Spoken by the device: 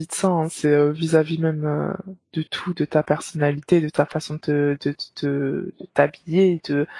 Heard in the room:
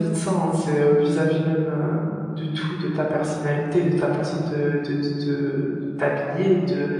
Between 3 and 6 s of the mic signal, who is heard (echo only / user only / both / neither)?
echo only